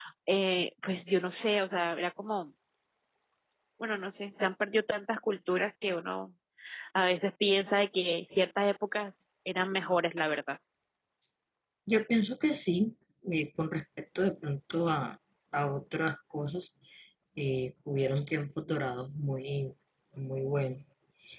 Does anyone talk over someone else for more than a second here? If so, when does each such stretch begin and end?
none

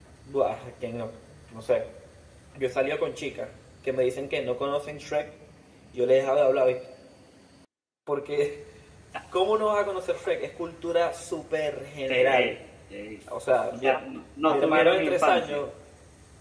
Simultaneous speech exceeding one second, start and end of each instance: 14.5-15.7

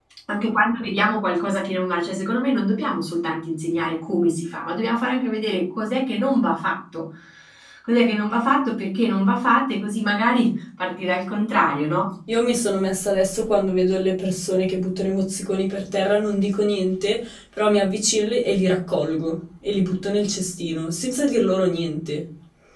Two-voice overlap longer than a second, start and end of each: none

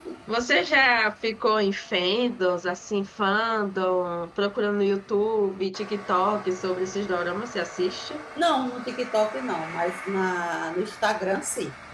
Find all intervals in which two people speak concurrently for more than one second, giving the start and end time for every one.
none

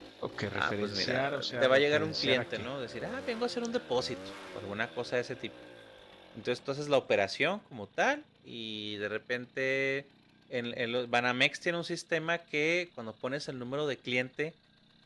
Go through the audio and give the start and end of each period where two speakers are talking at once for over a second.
0.6-2.7

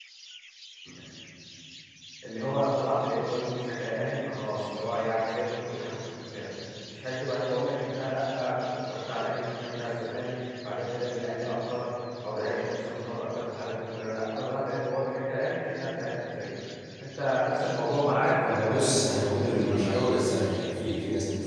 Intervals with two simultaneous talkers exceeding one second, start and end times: 18.5-19.9

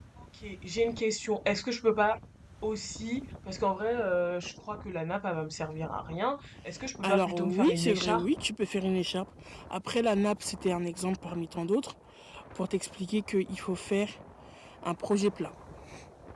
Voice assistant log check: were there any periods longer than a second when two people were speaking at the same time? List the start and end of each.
7.0-8.2

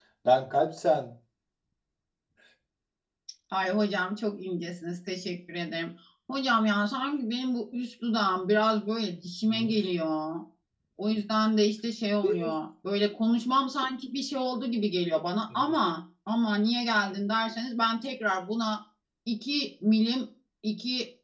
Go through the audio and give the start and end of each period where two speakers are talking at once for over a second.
none

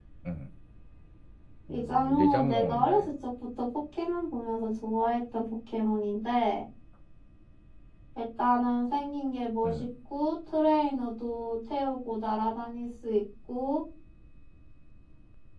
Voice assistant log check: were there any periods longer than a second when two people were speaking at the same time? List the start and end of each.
1.7-3.1

